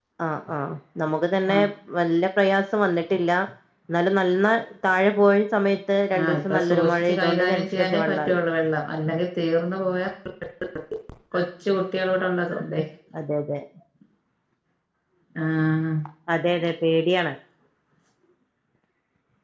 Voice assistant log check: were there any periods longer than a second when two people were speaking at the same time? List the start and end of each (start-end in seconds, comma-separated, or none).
6.2-8.4